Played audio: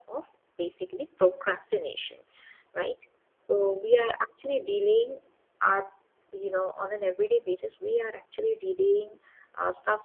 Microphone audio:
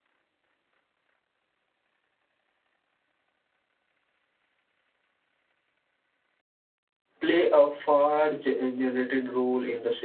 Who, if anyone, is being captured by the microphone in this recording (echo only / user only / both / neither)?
user only